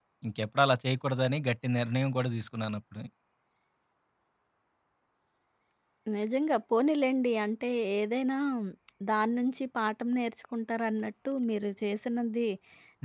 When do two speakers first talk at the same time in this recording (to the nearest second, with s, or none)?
none